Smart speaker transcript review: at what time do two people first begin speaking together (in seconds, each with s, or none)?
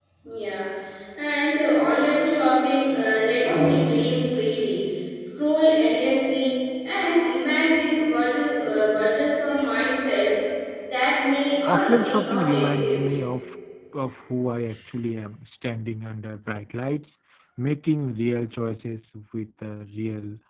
11.7 s